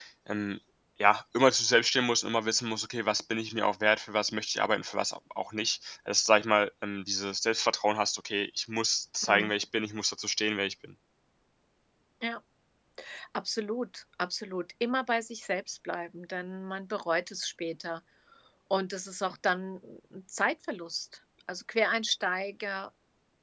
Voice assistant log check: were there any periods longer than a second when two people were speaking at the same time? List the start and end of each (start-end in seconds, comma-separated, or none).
none